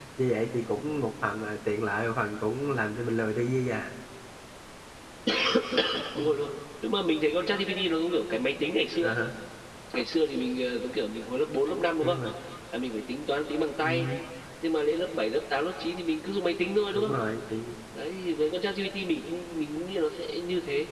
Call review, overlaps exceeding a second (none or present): none